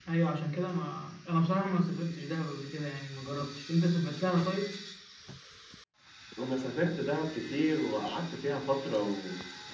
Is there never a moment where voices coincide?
Yes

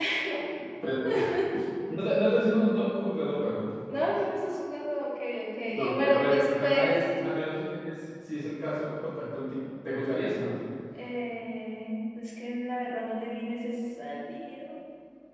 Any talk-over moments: Yes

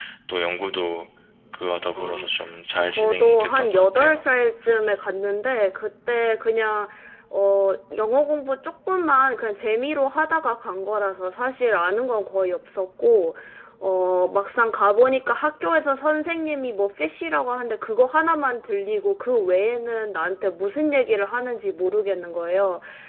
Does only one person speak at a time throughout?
No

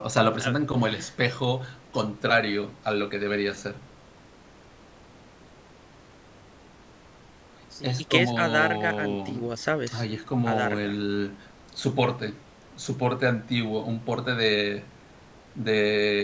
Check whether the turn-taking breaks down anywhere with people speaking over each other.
Yes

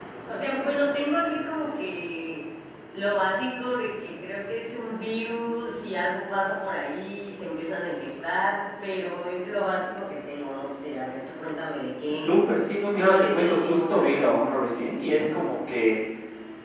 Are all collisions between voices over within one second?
No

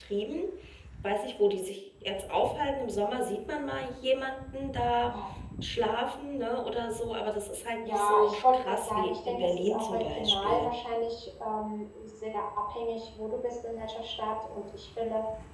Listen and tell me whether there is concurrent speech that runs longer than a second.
Yes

